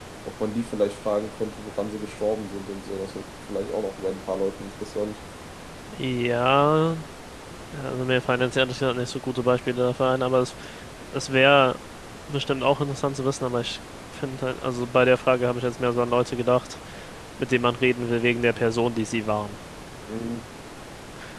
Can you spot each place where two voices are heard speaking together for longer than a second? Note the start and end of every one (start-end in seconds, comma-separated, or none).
none